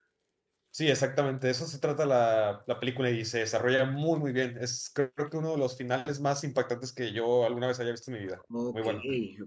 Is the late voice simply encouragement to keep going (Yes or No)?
No